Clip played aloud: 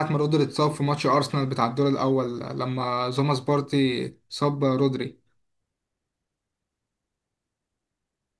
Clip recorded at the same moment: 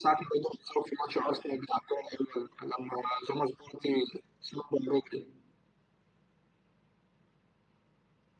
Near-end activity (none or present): none